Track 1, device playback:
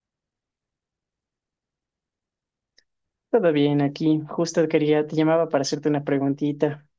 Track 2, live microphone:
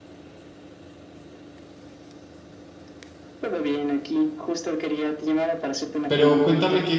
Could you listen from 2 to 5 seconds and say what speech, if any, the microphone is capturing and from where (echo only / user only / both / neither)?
echo only